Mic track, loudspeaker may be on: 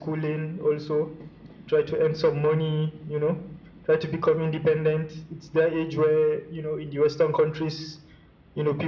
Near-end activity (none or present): none